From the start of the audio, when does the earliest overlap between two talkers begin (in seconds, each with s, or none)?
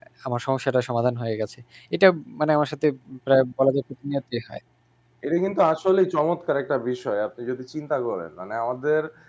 none